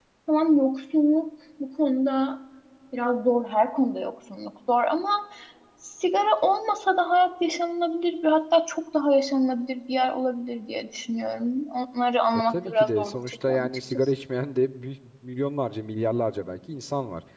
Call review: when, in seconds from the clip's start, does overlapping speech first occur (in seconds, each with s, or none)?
12.5 s